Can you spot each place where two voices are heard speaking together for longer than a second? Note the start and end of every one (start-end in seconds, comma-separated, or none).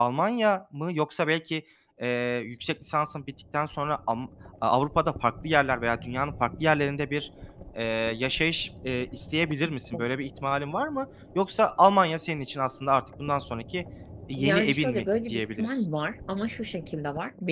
14.4-15.8